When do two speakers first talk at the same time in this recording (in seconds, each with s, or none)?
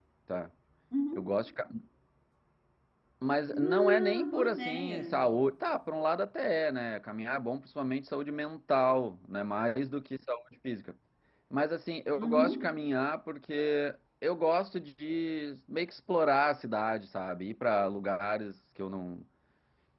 3.7 s